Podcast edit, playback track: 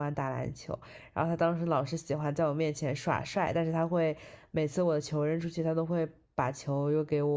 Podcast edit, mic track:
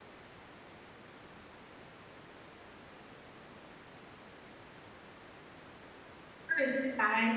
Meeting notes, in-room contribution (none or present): present